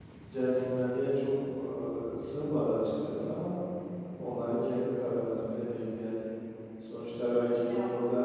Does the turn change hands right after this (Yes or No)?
No